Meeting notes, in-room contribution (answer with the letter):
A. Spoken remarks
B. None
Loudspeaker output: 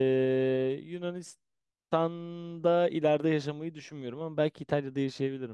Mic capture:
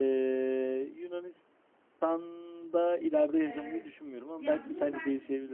A